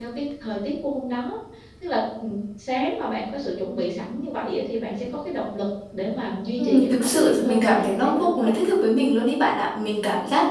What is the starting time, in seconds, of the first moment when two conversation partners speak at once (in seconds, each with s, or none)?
6.6 s